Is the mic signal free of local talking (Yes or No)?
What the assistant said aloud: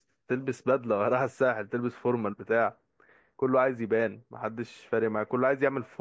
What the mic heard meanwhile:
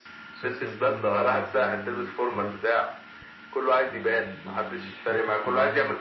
No